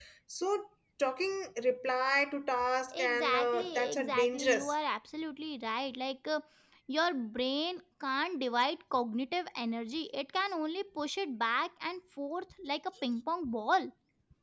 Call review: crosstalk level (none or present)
present